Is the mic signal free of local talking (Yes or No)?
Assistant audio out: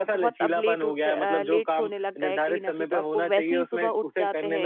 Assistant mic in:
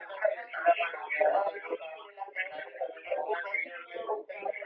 Yes